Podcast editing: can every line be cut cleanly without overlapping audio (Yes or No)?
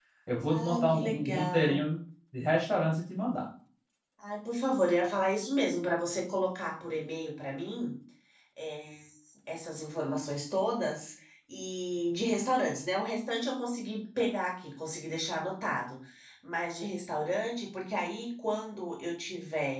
No